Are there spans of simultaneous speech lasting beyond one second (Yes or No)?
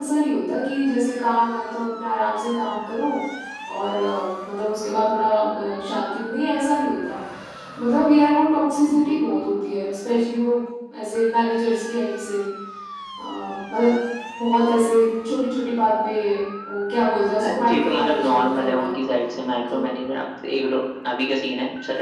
Yes